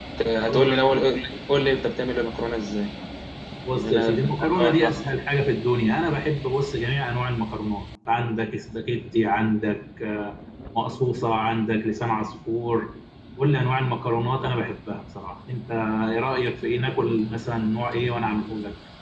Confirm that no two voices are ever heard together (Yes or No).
No